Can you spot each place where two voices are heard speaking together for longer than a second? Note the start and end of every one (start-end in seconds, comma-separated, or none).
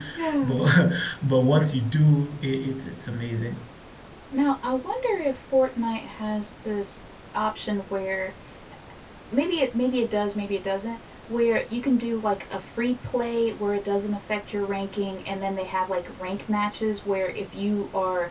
none